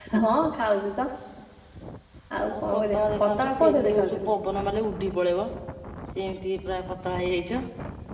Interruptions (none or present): present